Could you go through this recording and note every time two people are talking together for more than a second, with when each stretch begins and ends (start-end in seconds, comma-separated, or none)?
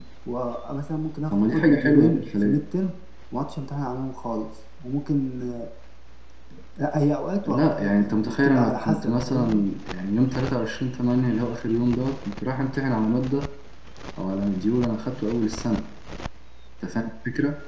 1.3-2.6, 7.5-9.7